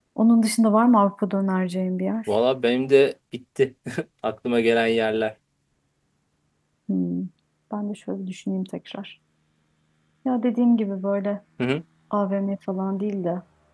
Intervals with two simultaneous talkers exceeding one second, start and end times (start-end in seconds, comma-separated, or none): none